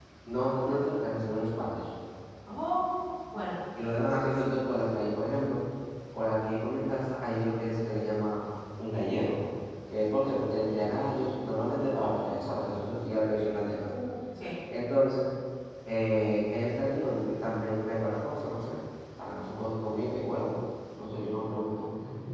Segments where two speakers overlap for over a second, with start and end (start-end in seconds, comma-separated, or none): none